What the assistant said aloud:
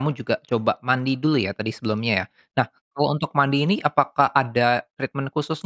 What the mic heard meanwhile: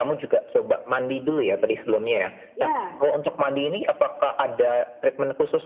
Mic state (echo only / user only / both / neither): both